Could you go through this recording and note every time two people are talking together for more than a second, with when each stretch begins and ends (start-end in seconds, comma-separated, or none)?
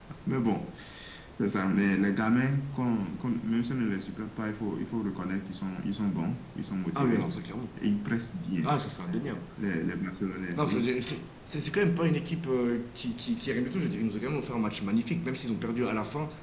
none